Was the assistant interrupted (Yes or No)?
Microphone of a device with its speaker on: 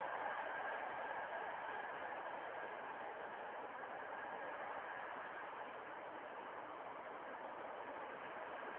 No